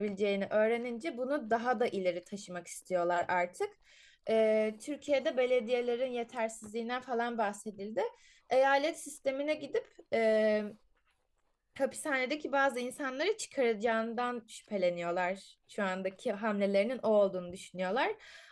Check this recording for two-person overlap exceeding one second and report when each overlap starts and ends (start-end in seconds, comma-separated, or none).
none